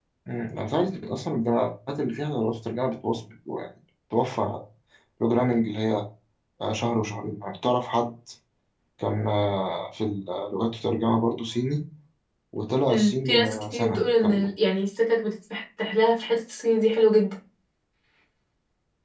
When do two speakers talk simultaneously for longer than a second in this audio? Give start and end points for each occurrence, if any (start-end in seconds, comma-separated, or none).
12.9-14.5